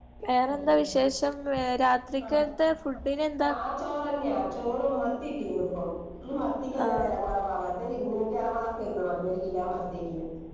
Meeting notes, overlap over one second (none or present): none